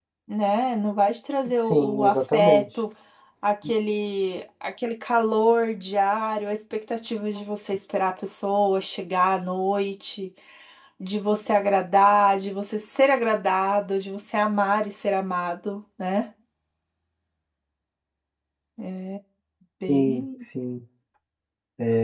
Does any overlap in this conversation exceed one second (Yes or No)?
Yes